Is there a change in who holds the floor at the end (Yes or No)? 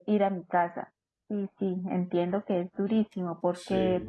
No